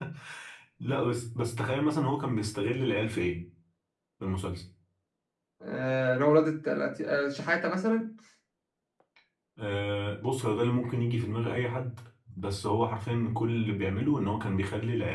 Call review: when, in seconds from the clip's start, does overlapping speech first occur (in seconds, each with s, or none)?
none